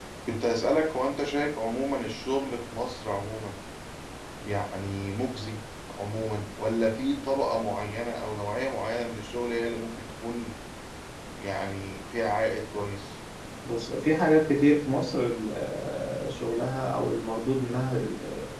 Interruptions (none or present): none